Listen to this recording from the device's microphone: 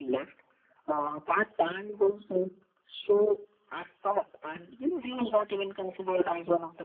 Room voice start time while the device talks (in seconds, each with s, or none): none